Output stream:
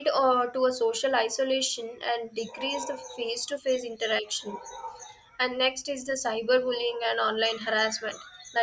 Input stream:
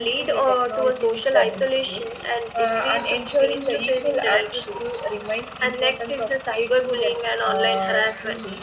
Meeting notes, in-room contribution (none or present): present